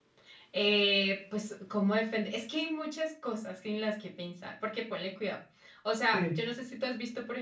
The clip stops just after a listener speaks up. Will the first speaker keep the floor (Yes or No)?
Yes